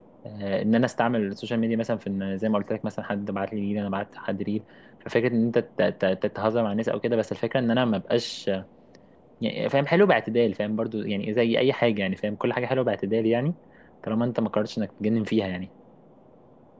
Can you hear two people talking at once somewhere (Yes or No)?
No